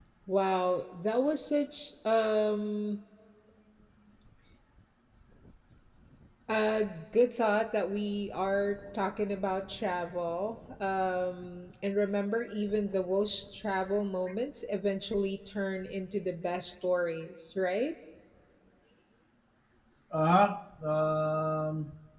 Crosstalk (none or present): none